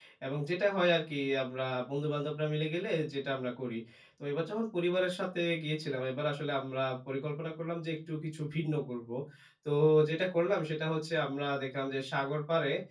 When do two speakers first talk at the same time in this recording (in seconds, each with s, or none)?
none